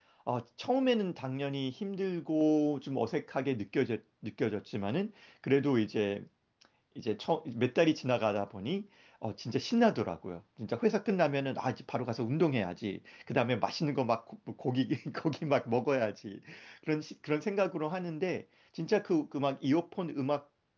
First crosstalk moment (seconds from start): none

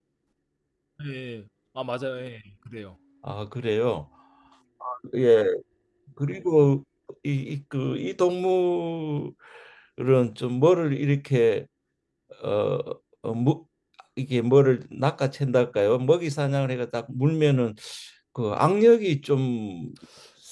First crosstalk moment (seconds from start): none

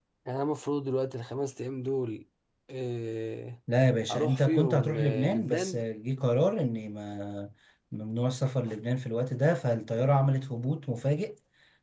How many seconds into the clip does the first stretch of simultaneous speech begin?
4.1 s

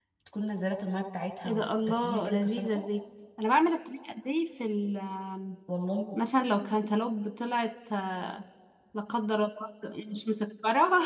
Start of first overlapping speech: 1.4 s

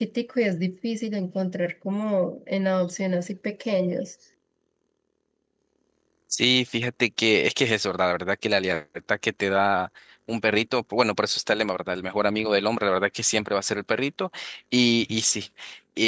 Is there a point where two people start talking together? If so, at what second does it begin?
none

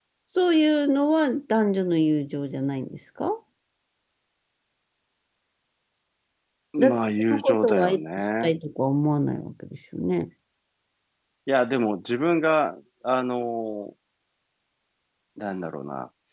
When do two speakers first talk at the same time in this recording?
6.8 s

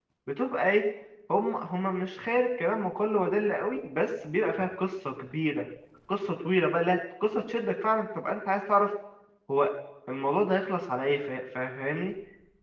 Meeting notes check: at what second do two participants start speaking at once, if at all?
none

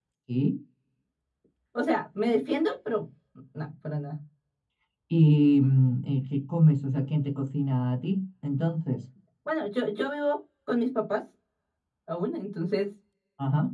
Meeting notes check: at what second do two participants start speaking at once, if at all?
none

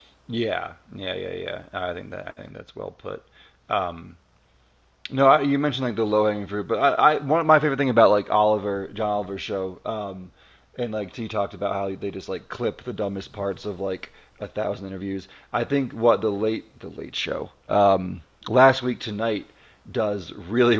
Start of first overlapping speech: none

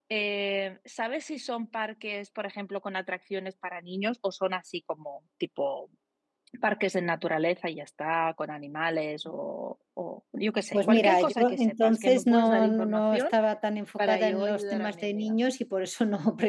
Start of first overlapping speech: 10.7 s

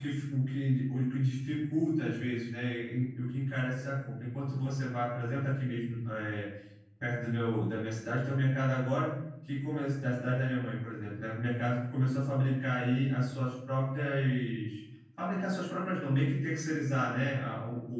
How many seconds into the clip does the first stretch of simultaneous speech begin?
none

